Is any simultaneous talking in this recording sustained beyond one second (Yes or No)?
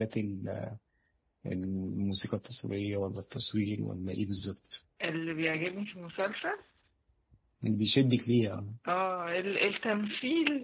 No